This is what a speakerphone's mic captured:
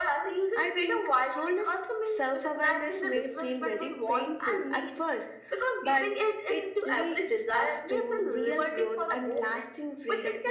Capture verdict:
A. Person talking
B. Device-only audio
B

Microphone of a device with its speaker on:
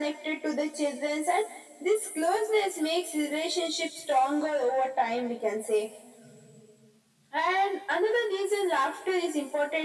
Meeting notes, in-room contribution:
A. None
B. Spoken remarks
A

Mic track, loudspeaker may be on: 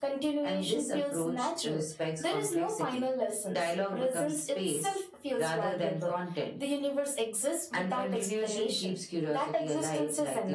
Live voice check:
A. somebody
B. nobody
B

